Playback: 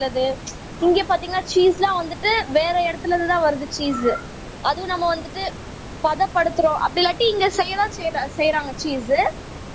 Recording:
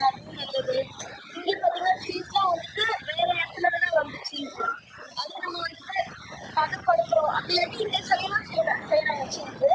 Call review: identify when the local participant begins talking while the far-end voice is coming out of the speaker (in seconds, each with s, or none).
none